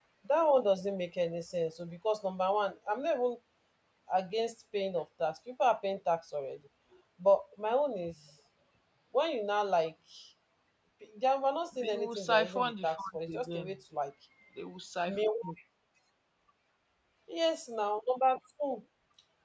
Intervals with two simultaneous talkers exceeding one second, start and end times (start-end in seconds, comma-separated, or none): 11.8-13.7